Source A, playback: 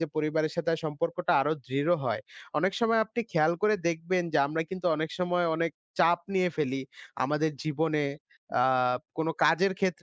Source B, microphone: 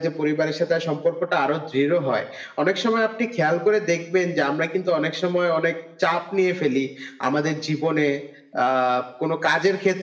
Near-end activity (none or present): none